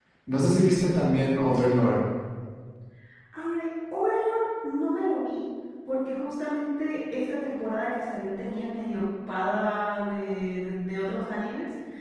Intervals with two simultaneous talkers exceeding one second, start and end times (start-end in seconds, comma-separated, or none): none